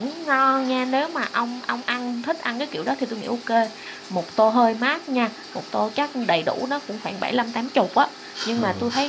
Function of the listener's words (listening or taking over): listening